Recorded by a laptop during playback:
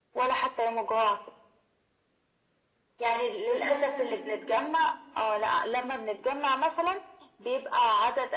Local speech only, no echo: انا لا

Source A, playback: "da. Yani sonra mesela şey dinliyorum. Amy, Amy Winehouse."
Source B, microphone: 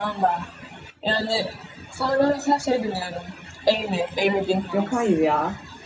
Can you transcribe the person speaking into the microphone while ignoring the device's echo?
Yok hayır ya.

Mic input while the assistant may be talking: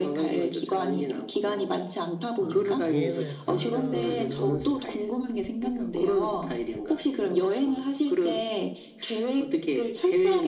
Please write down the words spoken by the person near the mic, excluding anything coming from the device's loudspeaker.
아, 여행을 간다 그러면은

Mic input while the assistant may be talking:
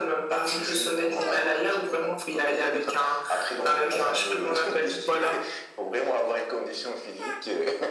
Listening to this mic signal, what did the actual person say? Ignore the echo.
none

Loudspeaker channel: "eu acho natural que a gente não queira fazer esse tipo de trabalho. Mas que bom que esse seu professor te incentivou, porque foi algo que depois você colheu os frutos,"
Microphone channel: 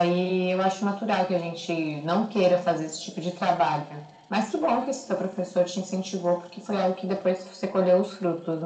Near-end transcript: none

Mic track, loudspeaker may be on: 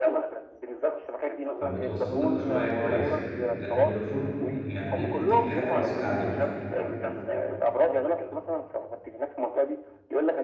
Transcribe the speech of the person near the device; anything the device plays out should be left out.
فبتوصل لك شويه كويس لكن فودافون يعني ايه بتجيب حاجه بسيطه عليك

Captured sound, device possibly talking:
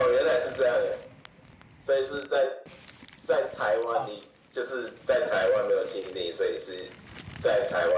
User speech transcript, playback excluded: 啊。

